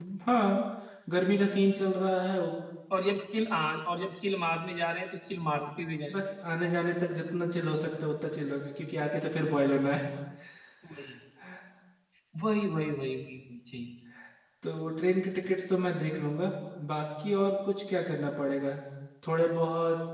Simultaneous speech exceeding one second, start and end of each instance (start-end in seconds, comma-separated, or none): none